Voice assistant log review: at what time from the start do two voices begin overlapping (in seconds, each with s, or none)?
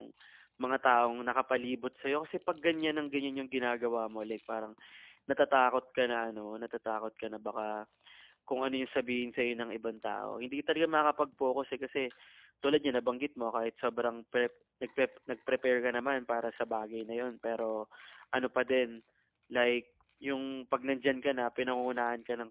none